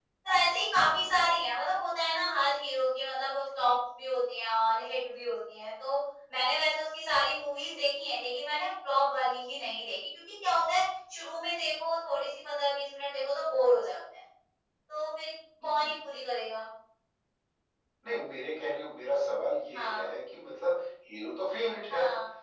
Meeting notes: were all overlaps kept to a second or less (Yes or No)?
Yes